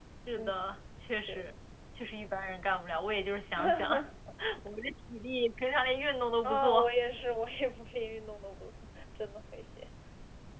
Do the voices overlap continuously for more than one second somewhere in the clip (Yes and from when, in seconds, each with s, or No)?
No